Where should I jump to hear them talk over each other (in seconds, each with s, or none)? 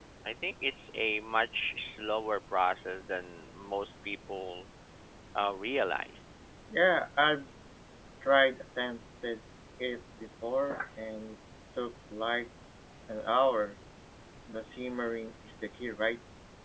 none